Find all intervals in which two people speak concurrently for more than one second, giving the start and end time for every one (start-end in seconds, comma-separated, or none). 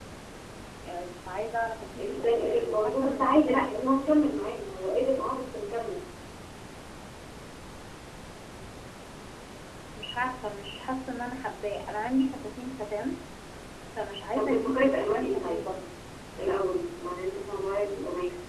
2.0-4.0, 14.3-15.6